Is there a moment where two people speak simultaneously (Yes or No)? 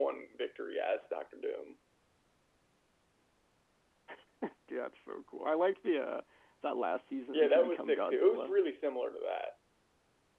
Yes